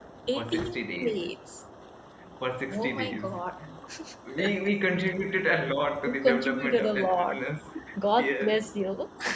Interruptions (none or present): present